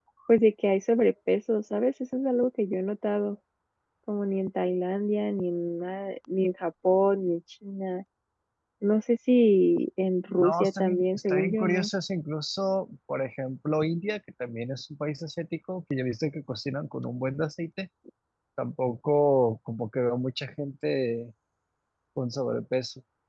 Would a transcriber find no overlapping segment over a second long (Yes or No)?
No